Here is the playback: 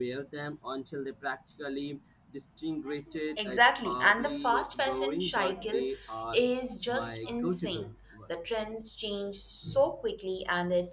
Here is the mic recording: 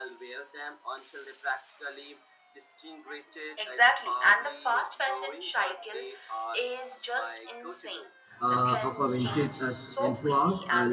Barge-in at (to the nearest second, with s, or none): 8 s